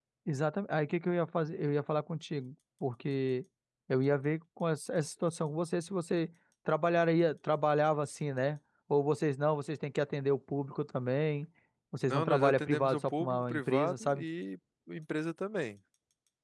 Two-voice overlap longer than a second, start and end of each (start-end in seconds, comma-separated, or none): 12.1-14.2